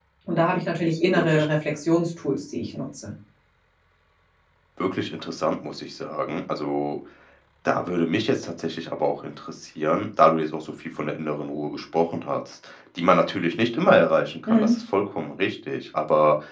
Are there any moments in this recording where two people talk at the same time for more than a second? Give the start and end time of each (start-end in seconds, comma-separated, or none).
none